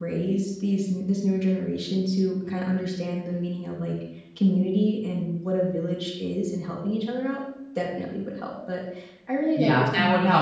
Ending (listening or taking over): taking over